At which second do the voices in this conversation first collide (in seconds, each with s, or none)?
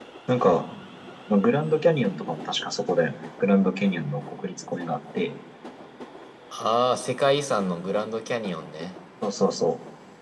none